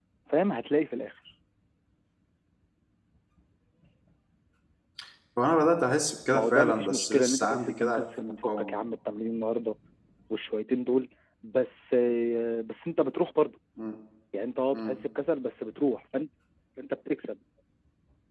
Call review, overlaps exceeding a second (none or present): present